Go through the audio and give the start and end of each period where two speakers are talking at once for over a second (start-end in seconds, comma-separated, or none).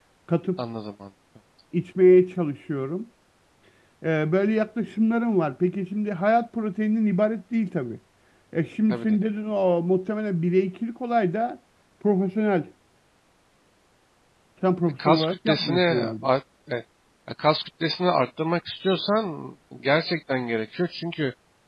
15.0-16.3